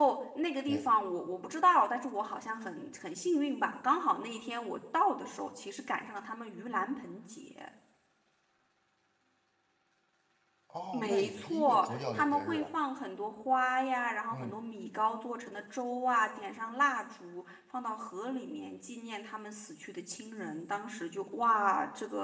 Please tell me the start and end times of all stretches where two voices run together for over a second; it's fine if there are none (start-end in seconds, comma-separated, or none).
10.9-12.7